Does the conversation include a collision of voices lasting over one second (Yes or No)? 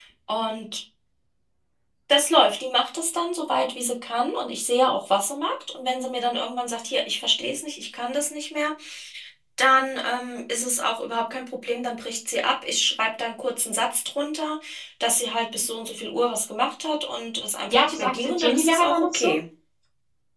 Yes